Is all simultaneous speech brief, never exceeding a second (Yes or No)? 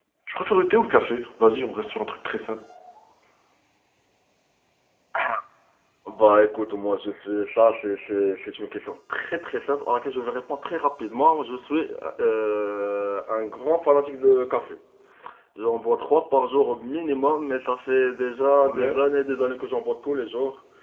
Yes